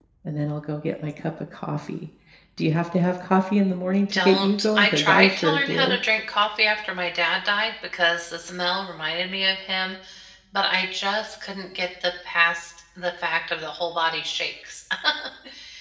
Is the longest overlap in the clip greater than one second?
Yes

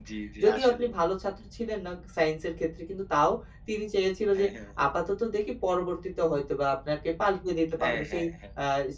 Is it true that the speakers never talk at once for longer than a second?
Yes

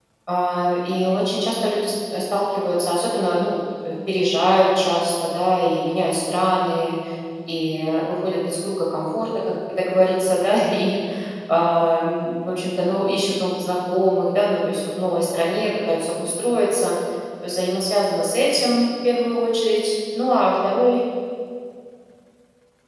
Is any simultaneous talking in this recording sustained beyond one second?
No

